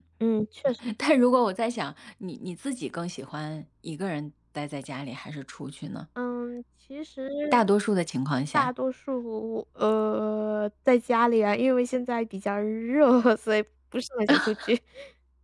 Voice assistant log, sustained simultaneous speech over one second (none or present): none